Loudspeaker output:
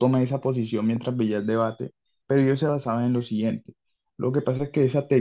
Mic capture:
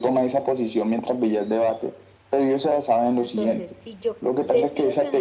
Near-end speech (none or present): present